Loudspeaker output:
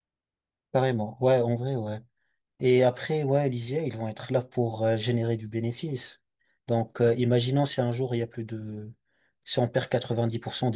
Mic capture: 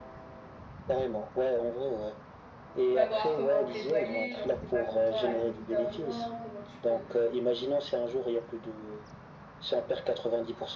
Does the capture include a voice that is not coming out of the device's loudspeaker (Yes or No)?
Yes